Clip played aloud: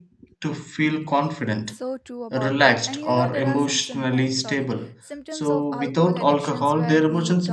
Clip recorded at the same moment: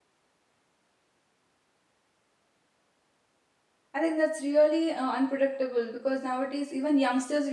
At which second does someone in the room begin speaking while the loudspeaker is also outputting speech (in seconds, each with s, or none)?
3.9 s